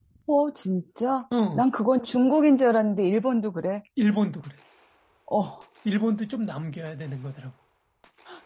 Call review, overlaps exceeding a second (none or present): none